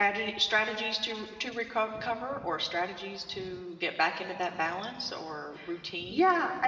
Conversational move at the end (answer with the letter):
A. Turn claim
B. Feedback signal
A